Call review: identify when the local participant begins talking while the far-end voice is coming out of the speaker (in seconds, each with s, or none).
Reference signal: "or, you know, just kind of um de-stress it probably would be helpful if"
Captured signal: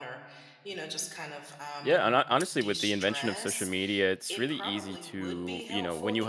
1.8 s